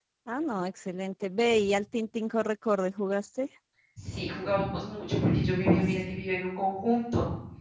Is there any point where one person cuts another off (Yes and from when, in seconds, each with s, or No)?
No